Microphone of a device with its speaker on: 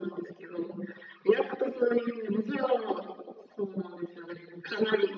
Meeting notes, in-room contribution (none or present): none